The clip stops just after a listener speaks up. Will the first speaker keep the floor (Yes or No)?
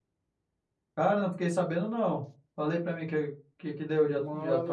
No